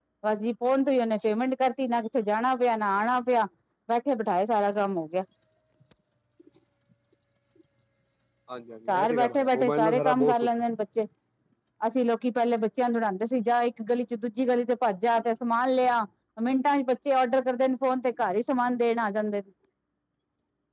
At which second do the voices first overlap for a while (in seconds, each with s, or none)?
8.9 s